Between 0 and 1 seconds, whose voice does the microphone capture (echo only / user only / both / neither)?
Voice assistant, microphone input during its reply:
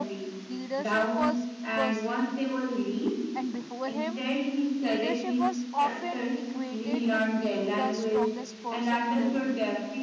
both